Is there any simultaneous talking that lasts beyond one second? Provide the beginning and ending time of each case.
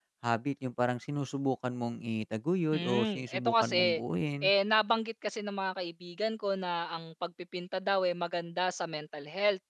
2.7-4.0

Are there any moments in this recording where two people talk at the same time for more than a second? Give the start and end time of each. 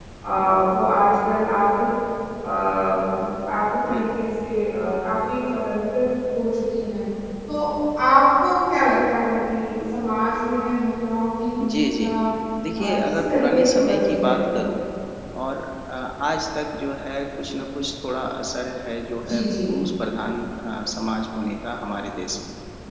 12.8-14.4

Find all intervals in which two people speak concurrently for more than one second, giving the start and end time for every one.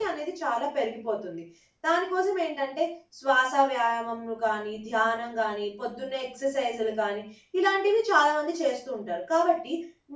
none

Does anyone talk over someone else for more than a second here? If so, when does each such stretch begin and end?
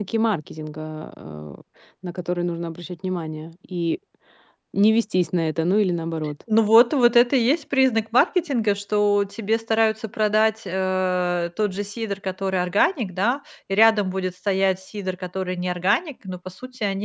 none

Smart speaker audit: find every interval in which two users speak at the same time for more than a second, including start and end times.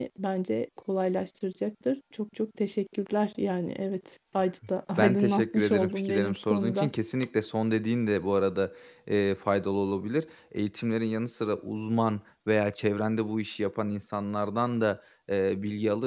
5.0-6.9

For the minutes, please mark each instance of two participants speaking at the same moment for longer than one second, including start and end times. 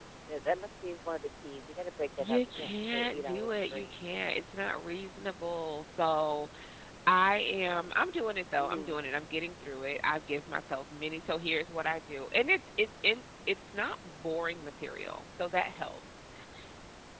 2.2-3.9

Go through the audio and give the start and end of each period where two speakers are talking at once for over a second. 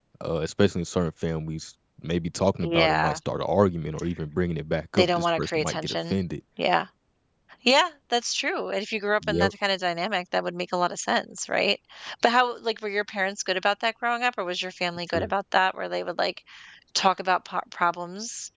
5.0-6.2

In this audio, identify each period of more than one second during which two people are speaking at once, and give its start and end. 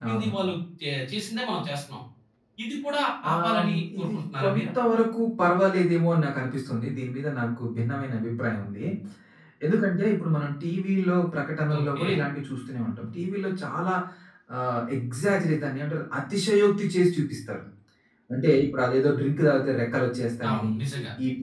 3.3-4.6

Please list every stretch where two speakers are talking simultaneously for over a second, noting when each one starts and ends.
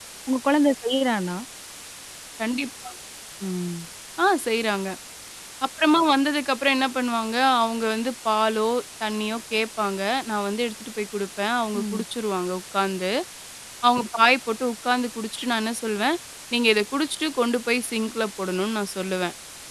none

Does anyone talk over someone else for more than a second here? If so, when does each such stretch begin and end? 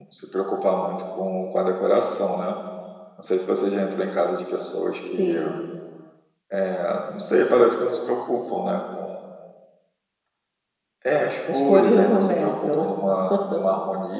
11.5-12.8

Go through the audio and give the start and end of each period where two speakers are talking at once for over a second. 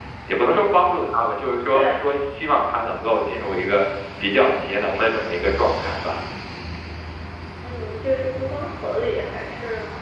none

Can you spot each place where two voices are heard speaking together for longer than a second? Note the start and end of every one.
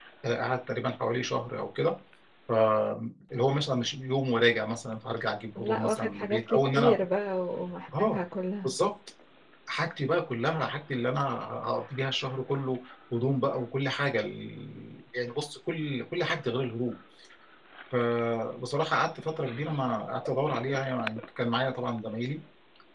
5.6-6.9

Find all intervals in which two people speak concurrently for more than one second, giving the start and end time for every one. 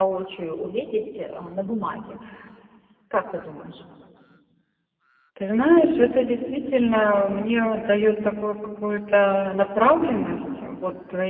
none

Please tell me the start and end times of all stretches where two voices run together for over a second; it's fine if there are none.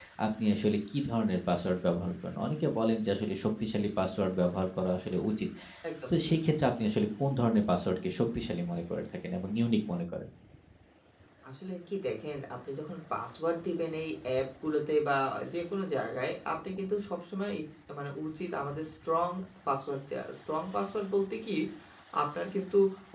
none

